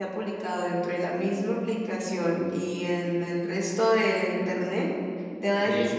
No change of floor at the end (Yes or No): Yes